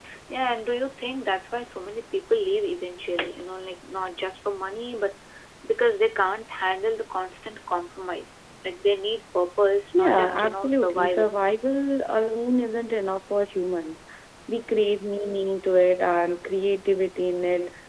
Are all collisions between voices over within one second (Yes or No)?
No